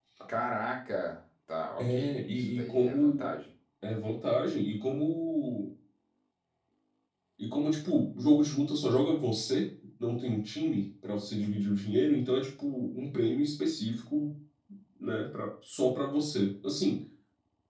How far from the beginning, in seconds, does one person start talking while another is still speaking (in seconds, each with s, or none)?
1.8 s